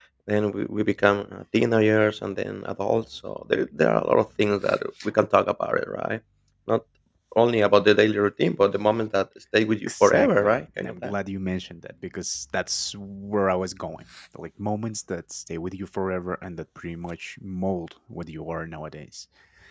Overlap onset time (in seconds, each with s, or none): 9.9 s